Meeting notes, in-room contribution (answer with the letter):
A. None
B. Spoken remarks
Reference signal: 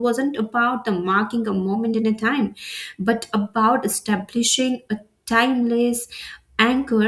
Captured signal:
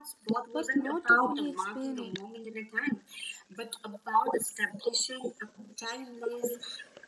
B